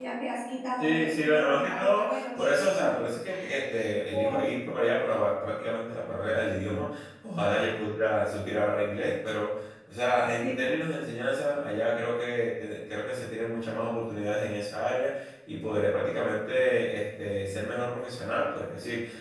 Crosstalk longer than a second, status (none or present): present